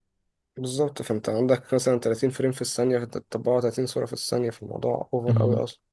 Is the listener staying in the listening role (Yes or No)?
No